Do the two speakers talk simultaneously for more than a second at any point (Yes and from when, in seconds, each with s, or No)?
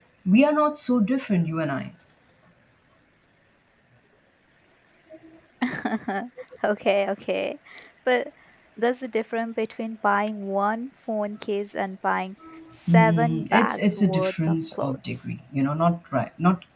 Yes, from 12.9 s